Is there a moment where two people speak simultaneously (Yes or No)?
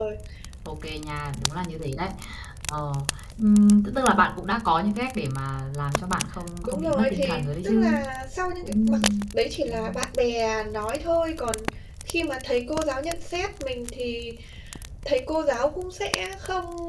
Yes